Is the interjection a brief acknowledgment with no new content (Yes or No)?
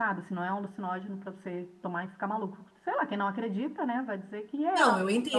No